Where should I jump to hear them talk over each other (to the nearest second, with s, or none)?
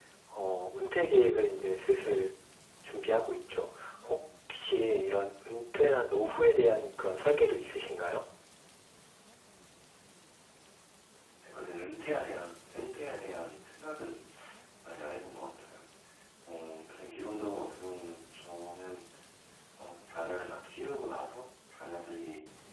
none